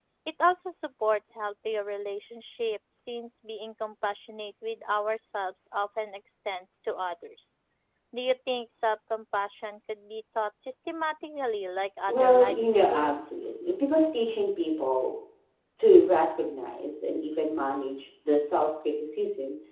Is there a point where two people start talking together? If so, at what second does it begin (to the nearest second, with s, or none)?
12 s